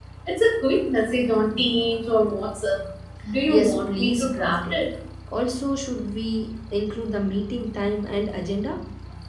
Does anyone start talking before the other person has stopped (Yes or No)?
Yes